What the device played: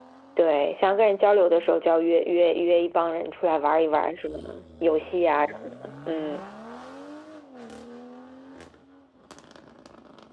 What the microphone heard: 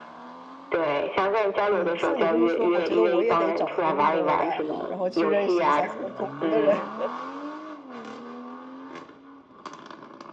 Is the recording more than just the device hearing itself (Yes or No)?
Yes